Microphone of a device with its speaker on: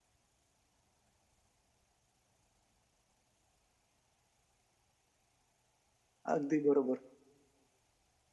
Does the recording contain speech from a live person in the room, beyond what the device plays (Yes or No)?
Yes